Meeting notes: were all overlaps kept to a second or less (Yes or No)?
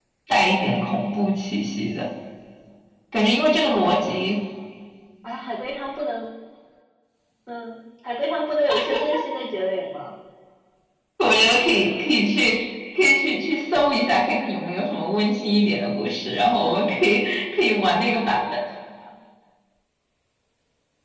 Yes